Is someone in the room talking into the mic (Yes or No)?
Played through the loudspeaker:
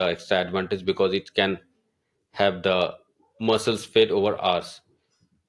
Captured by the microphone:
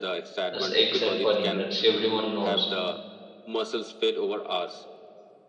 Yes